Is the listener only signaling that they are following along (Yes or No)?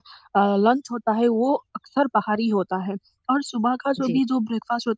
Yes